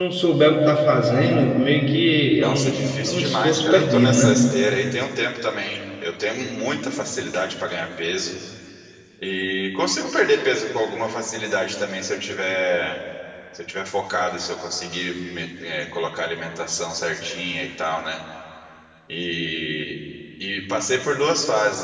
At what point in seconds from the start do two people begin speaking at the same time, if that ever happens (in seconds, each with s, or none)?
2.4 s